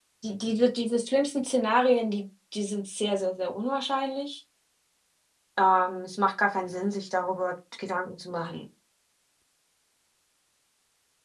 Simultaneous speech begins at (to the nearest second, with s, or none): none